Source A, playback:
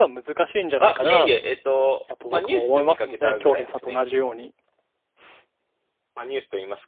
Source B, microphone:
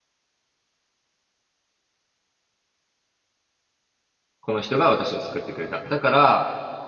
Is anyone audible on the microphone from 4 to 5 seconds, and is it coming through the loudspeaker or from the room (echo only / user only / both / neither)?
user only